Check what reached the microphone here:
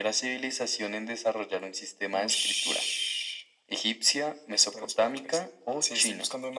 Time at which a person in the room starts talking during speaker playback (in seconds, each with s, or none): none